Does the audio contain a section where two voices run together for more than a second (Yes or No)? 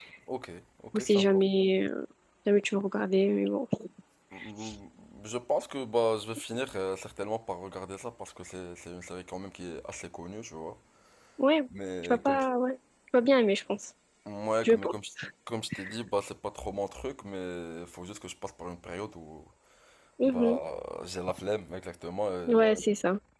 No